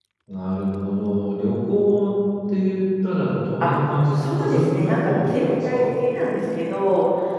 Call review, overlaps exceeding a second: present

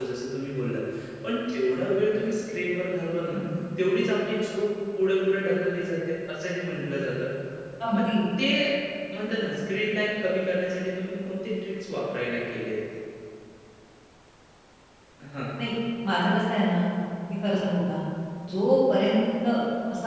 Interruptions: none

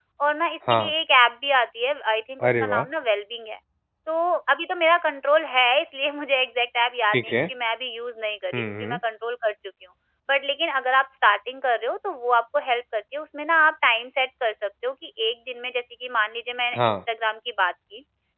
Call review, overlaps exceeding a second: none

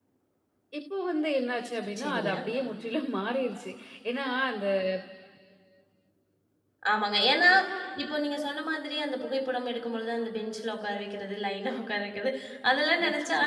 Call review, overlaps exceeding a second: none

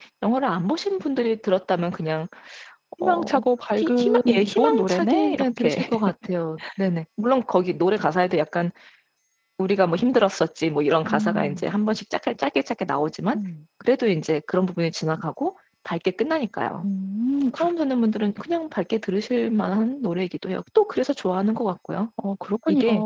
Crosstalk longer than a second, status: present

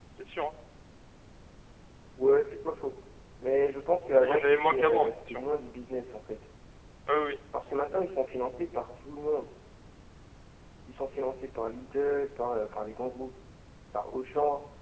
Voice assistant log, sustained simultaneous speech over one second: present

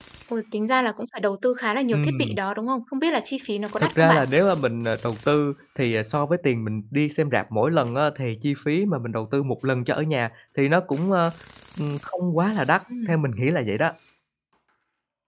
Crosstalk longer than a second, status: none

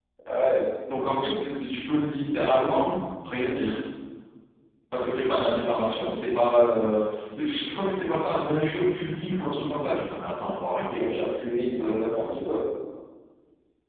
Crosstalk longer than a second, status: none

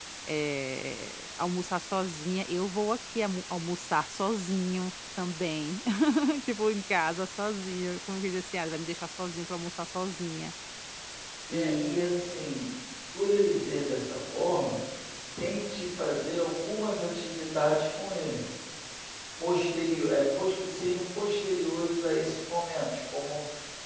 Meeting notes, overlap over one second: none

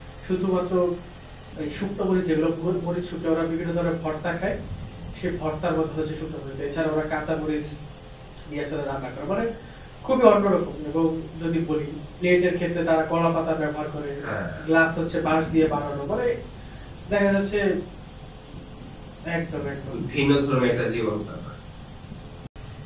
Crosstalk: none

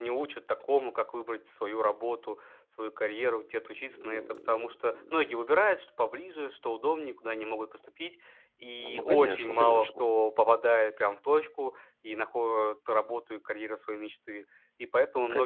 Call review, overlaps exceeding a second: present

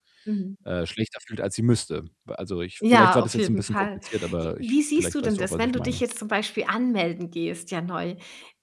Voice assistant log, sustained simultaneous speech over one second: present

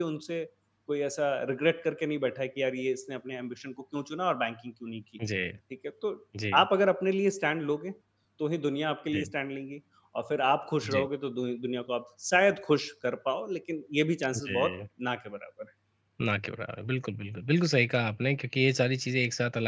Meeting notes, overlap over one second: none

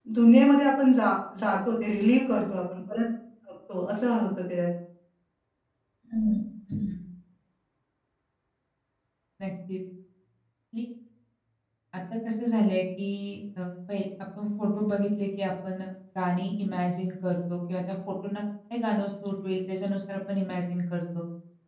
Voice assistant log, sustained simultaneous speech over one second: none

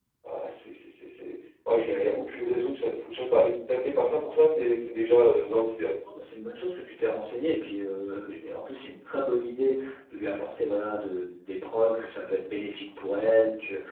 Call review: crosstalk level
none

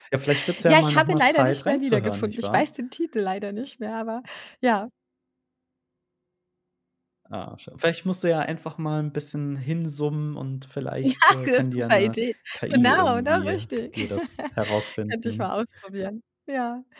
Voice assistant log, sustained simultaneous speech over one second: present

